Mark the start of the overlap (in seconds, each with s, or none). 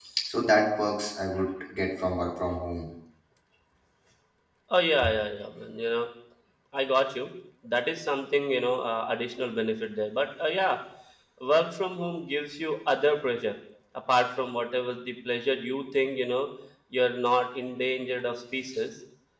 none